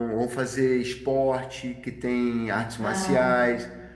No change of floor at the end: Yes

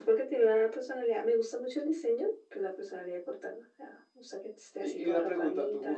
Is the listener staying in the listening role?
No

